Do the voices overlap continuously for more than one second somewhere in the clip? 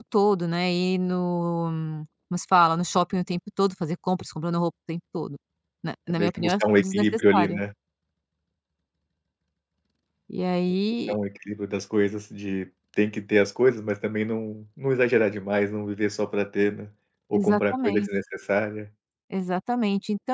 Yes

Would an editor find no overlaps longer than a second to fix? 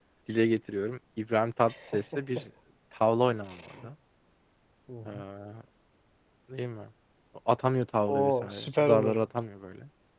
No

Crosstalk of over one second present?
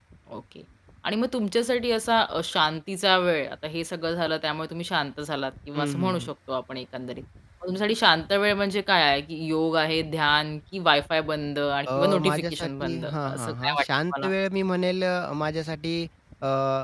Yes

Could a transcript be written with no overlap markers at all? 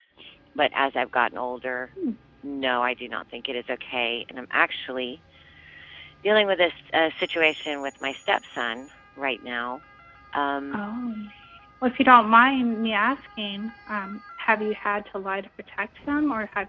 Yes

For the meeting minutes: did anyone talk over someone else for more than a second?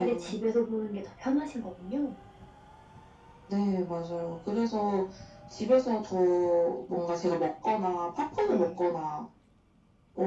No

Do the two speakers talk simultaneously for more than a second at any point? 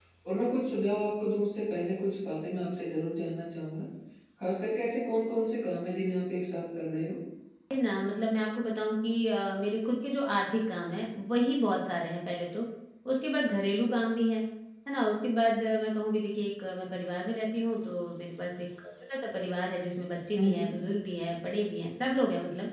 No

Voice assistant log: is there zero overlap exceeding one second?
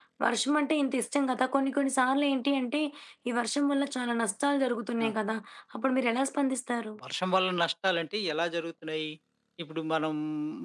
Yes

